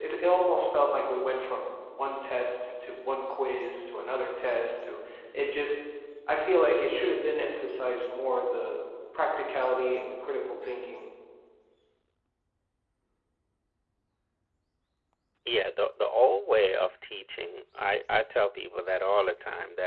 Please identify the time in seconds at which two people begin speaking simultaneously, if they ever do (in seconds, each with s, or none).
none